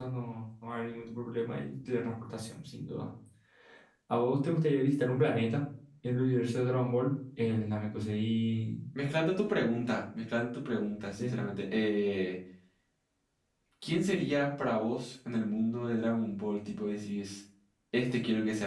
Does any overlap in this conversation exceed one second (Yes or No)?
No